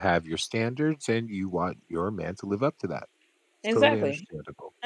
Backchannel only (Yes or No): No